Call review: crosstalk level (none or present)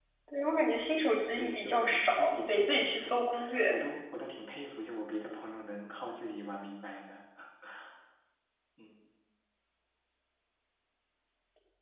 present